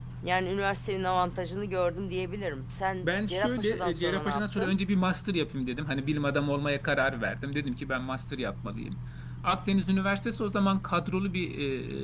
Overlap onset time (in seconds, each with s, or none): 3.0 s